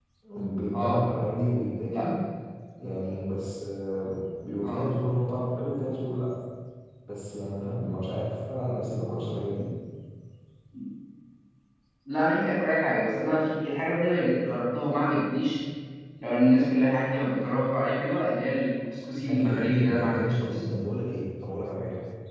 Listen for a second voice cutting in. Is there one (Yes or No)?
Yes